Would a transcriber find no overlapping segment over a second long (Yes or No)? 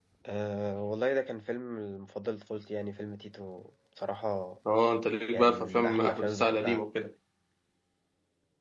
No